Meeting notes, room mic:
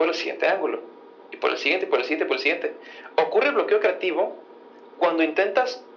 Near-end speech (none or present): none